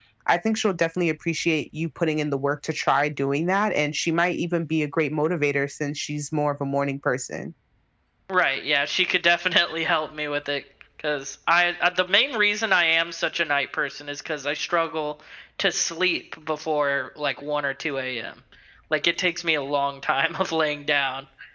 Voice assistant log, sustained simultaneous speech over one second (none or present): none